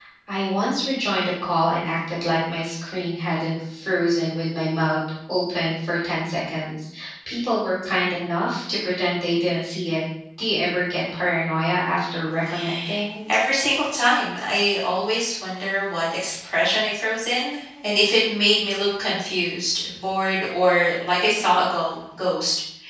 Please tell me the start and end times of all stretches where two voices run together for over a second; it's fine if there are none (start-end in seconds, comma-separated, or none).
none